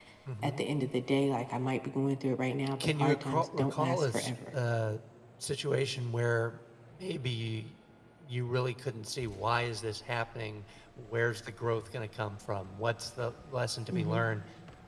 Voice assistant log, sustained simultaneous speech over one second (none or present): present